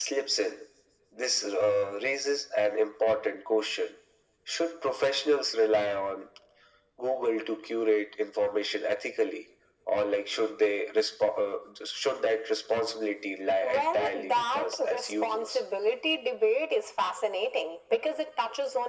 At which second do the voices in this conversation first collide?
13.6 s

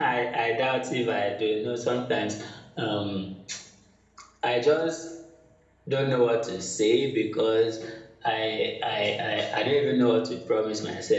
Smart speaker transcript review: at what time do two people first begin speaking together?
none

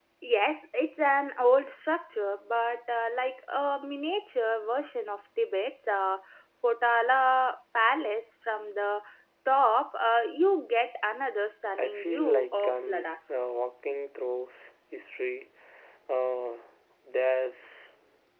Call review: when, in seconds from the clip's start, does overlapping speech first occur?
11.7 s

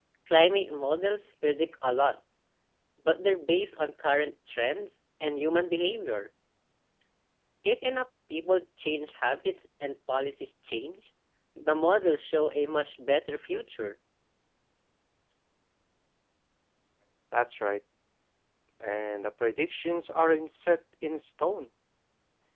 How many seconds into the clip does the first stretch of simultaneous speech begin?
none

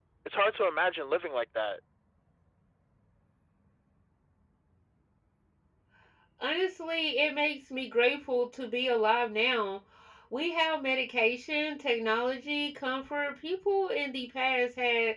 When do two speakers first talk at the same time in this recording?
none

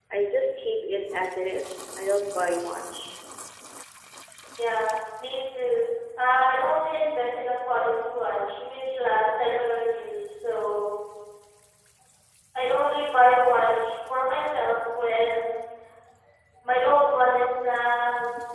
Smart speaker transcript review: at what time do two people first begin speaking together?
none

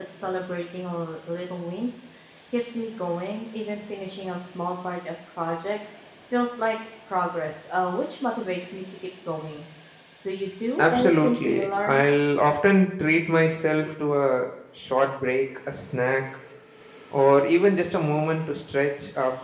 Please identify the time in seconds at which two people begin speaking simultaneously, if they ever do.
10.8 s

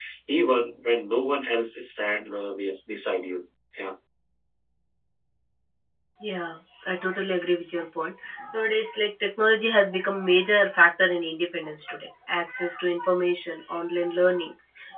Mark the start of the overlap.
none

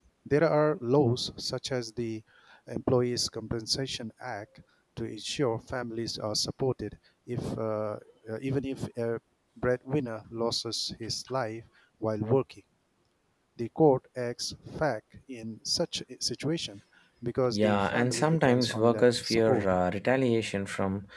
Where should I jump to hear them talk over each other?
17.5 s

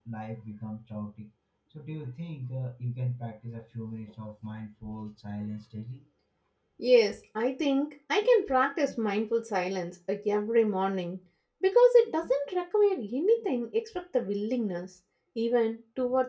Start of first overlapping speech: none

